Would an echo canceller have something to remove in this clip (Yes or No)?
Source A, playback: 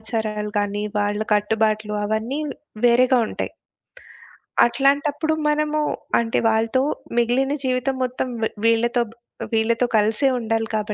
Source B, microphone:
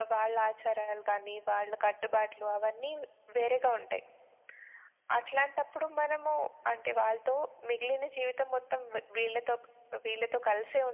Yes